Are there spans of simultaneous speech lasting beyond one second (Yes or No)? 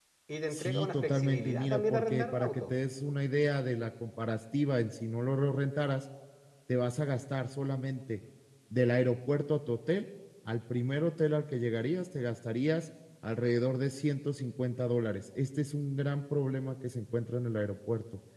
Yes